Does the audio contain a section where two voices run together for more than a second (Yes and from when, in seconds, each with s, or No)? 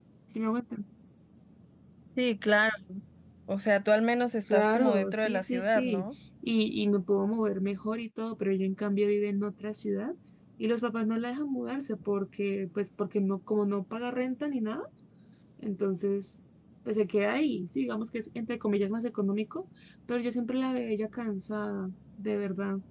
Yes, from 4.5 s